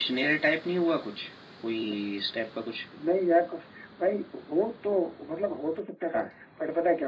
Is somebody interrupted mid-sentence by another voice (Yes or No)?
No